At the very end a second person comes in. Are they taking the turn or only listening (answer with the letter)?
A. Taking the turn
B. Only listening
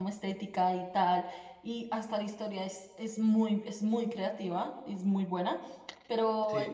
B